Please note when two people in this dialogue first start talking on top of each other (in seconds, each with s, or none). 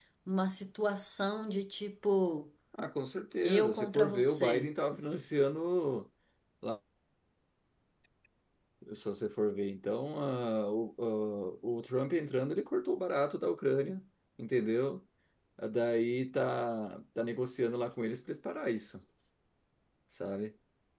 3.4 s